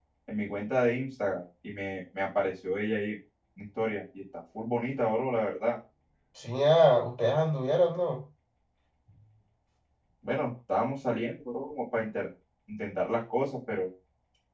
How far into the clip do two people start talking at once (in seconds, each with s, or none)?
none